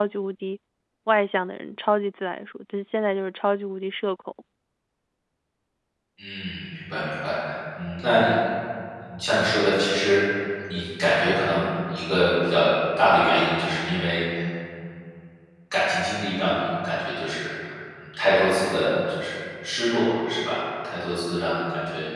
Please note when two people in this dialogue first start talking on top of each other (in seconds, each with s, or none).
none